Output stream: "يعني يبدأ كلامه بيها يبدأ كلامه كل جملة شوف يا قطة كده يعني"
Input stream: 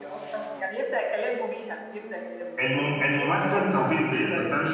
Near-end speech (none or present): present